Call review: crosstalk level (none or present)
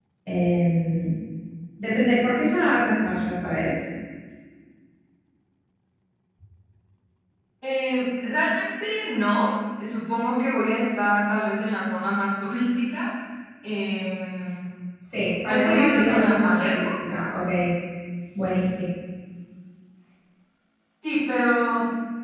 present